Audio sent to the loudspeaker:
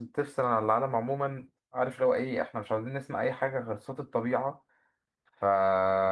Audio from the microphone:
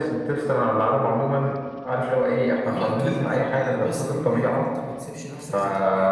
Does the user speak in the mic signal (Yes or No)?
Yes